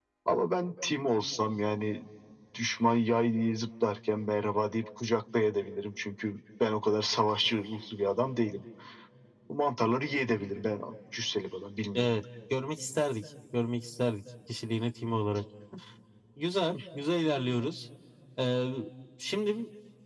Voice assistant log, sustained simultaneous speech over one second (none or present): none